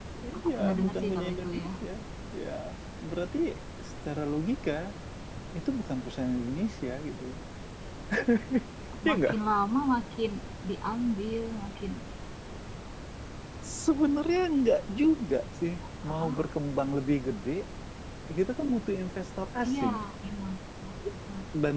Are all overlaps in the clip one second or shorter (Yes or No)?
No